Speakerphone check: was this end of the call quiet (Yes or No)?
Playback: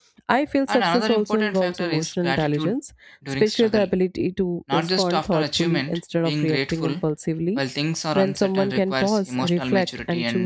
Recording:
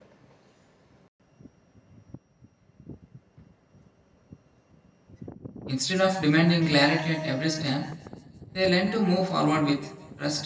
No